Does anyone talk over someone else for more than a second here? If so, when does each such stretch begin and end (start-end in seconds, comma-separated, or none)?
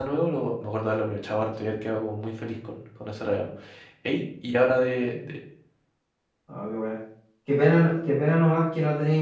none